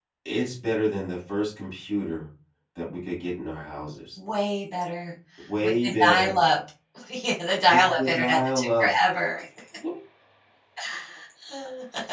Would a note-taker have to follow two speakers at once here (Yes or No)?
Yes